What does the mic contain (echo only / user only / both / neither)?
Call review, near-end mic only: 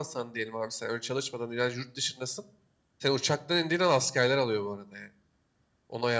echo only